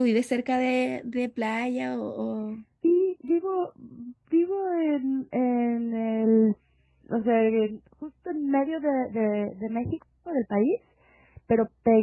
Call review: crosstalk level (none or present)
none